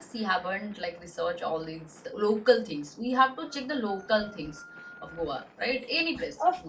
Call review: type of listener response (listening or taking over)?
taking over